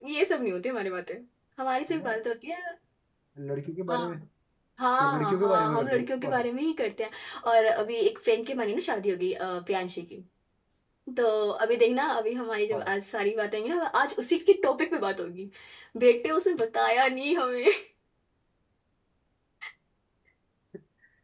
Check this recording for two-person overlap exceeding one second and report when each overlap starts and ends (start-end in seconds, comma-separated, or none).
5.0-6.5